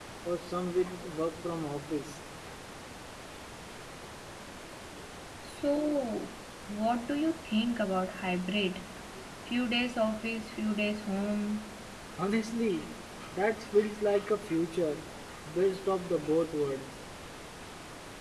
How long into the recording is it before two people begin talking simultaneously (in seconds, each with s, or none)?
none